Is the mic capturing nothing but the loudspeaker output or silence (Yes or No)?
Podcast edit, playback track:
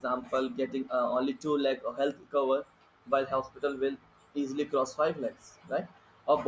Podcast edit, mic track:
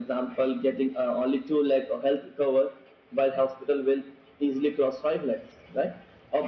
Yes